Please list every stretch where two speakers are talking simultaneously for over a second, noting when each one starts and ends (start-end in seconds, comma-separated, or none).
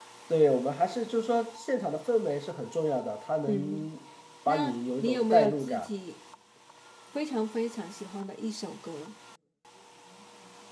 4.5-5.9